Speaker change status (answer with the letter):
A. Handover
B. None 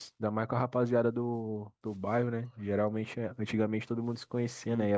B